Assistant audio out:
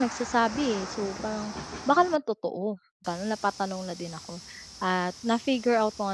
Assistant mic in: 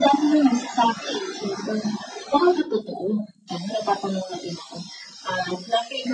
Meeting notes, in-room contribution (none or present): none